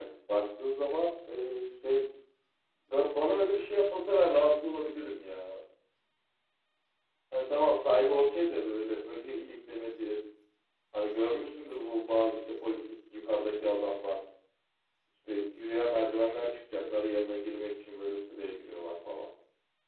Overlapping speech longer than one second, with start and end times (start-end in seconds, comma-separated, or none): none